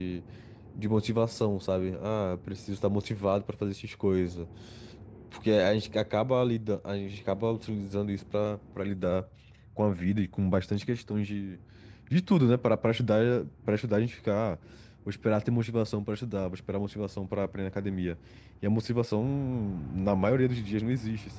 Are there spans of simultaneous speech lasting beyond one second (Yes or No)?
No